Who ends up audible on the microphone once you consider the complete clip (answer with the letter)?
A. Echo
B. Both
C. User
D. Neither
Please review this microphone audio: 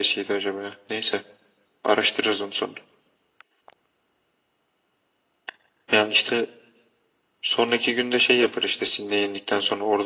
A